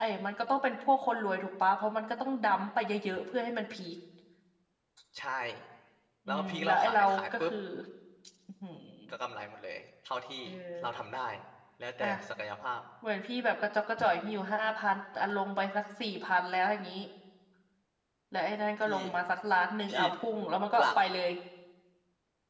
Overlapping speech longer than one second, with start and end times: 6.3-7.5

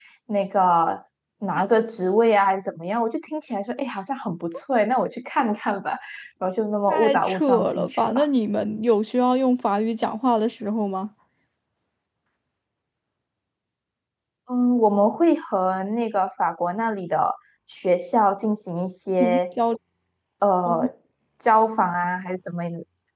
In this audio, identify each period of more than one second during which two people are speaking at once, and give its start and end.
6.9-8.1

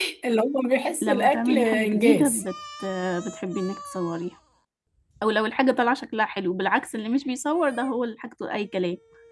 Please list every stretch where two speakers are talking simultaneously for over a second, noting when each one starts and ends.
1.0-2.4

